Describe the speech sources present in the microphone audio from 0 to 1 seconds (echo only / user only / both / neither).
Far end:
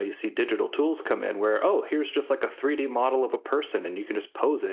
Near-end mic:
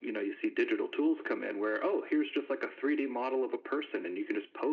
echo only